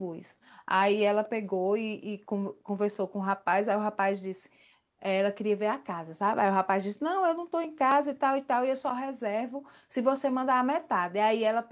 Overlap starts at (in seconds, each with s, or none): none